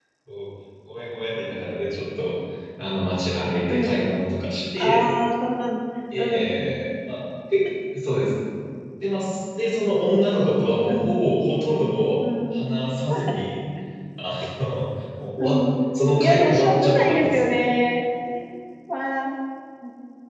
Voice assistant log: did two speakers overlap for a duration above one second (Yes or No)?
Yes